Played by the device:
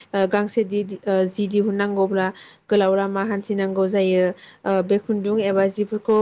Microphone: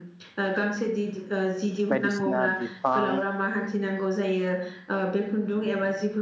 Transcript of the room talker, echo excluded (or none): बायदिसिना बिफां